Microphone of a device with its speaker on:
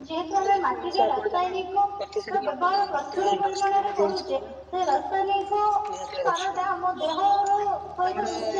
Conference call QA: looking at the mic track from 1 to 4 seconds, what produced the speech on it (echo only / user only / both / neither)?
both